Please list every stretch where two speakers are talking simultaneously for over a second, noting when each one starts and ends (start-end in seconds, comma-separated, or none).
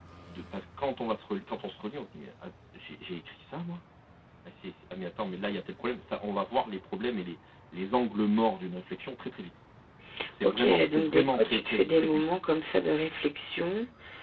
10.4-12.4